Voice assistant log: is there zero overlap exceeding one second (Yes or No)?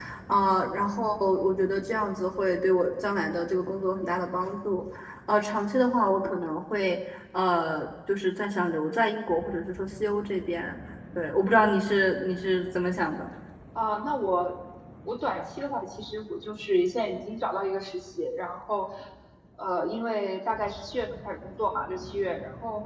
Yes